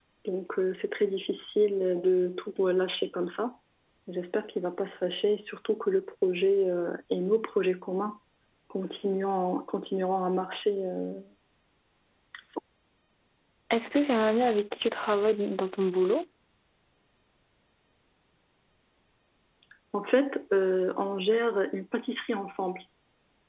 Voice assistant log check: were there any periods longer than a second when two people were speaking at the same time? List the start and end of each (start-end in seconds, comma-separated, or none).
none